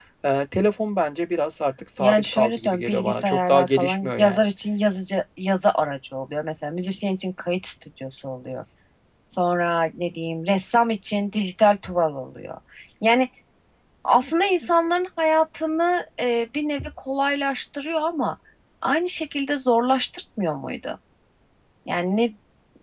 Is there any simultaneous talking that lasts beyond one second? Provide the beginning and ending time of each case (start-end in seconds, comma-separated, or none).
2.0-4.4